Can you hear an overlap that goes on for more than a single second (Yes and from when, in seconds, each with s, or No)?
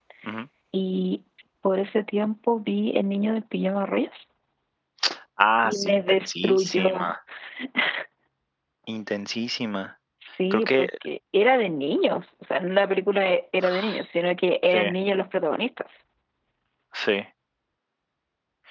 Yes, from 5.6 s